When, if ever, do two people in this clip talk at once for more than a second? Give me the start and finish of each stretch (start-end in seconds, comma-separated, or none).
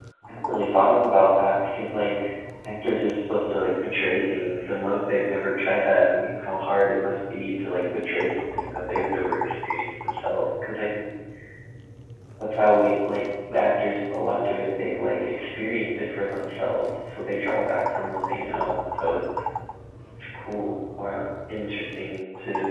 none